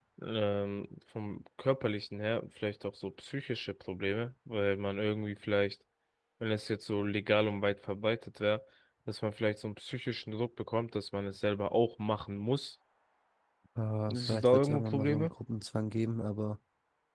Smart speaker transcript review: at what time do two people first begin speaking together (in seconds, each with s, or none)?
14.1 s